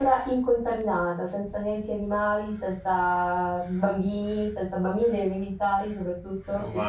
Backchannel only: No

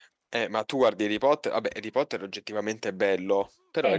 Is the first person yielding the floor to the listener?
Yes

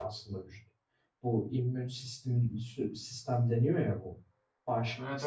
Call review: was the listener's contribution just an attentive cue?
Yes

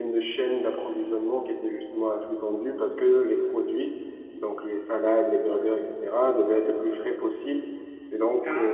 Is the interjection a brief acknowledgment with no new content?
Yes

